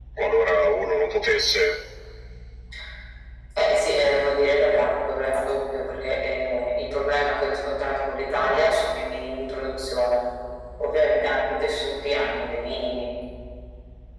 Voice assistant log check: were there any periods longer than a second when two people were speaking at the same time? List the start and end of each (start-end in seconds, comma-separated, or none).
none